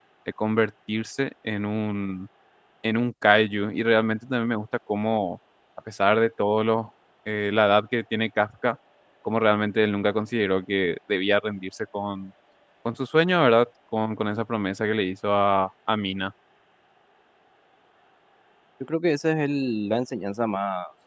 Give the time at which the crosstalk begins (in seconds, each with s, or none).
none